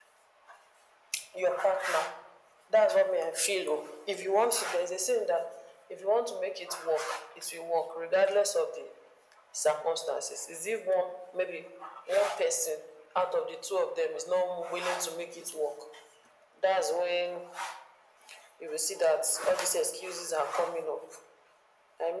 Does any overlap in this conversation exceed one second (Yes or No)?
No